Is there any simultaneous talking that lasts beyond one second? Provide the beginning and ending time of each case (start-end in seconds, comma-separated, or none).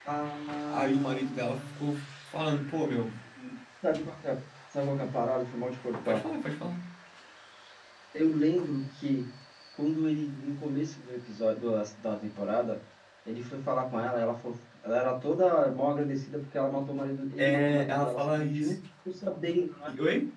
0.7-2.0, 17.4-18.7